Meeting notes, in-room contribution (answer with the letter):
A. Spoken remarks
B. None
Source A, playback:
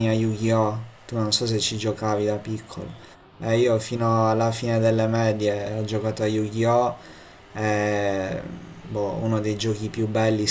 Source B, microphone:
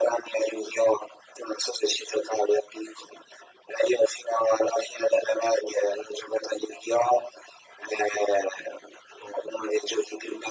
B